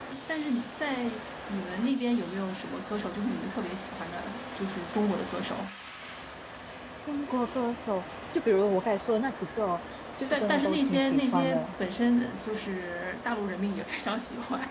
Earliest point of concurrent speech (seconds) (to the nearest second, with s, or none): 10 s